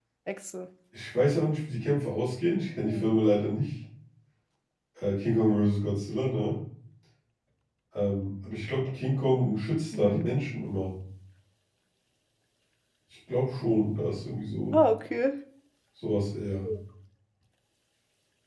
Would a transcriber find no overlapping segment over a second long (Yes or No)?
Yes